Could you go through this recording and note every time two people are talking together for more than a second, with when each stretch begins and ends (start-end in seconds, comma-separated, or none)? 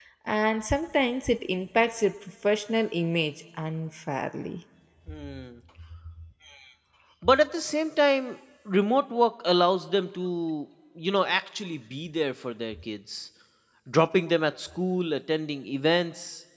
none